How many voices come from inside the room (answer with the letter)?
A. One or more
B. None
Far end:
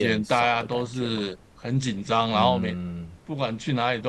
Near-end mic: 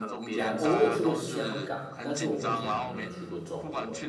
A